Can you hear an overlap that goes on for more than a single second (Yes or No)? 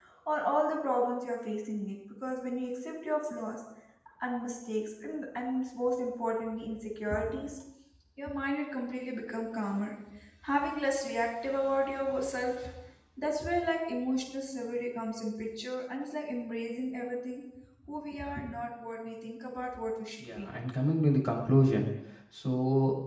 No